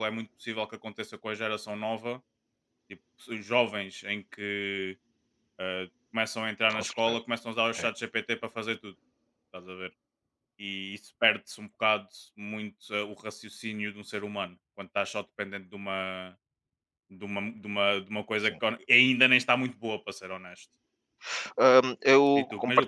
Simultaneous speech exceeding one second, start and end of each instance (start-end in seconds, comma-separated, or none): none